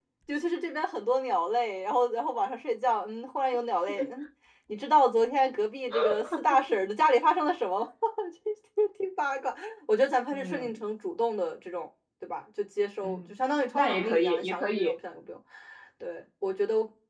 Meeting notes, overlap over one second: present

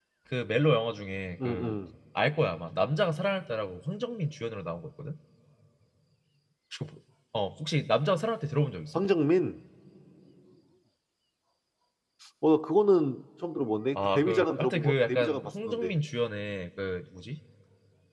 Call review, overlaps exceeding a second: present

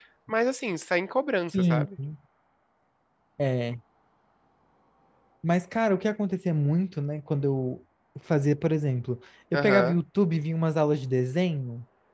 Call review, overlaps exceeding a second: none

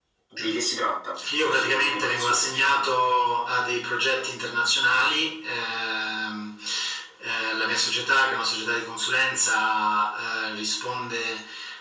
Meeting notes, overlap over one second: present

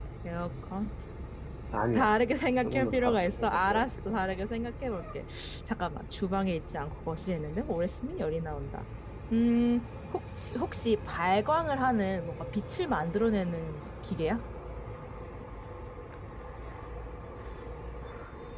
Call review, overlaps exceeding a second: present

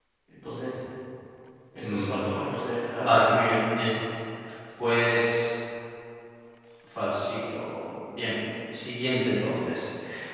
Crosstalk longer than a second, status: none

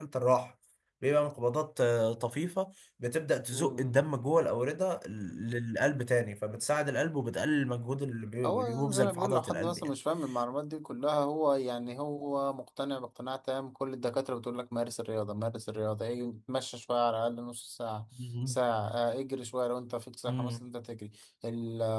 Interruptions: present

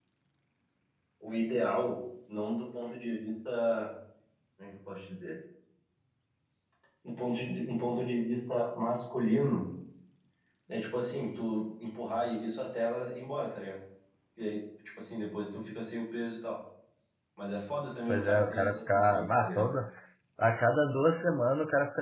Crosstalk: present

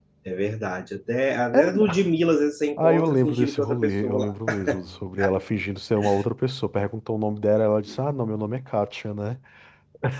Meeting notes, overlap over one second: present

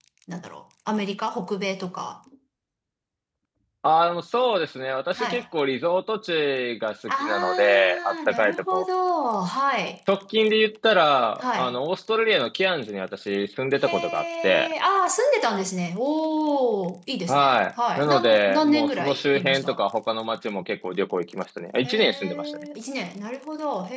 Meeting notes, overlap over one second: present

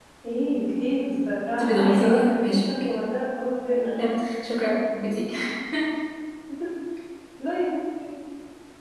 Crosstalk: present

